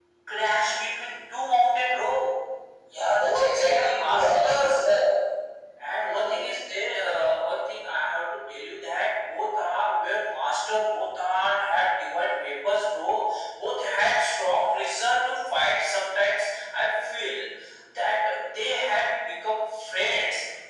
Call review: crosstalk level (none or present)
present